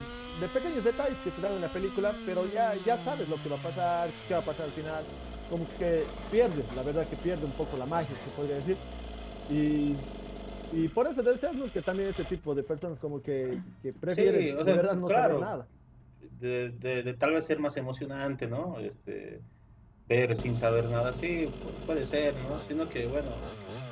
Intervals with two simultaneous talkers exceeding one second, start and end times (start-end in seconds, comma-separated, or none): 14.1-15.6